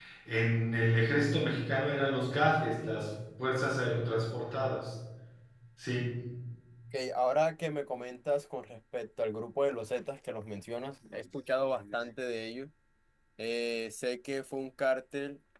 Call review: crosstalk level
none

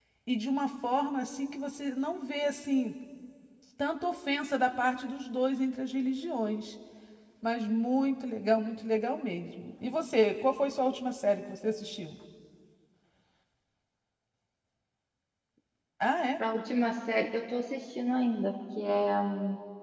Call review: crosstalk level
none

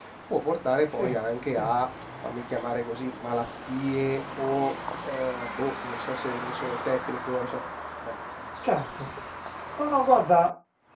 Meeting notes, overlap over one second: none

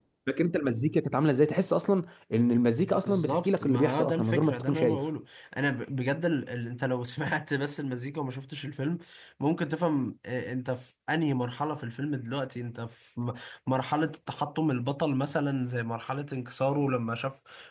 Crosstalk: present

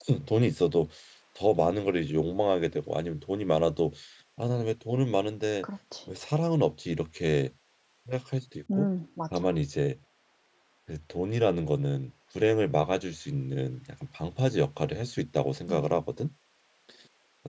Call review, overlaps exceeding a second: none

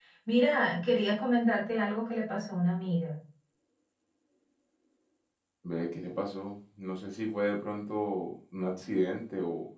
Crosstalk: none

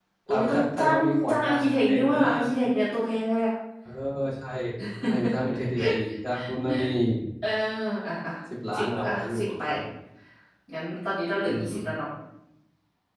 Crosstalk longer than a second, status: present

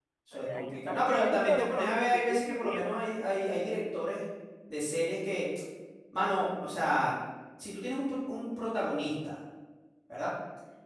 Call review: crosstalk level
present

